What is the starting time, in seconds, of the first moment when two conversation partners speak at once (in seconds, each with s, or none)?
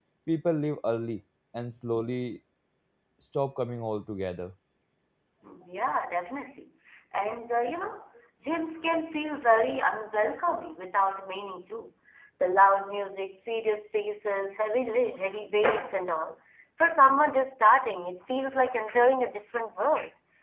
none